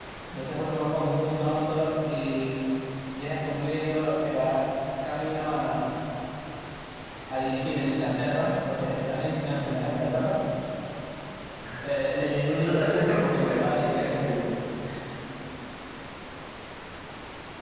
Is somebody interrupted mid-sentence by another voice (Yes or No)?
Yes